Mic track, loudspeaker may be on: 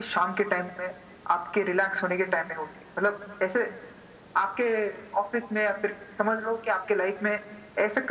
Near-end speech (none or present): none